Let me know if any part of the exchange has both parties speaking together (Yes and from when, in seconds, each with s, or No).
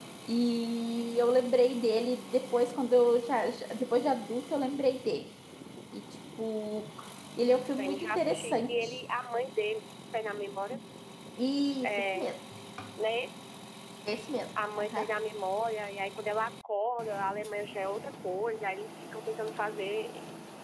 Yes, from 7.8 s